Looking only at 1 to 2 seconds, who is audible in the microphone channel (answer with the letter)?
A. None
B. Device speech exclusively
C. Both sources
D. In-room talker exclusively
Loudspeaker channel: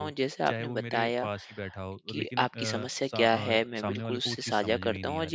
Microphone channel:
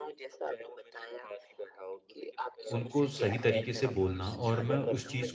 B